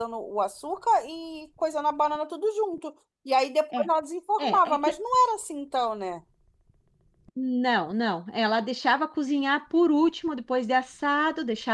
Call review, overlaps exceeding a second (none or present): none